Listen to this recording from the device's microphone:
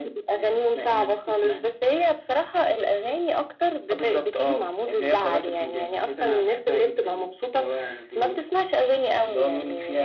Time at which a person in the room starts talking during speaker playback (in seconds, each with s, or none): none